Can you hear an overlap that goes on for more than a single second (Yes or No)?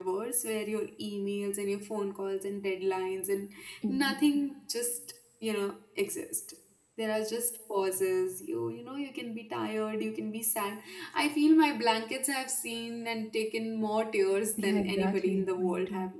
Yes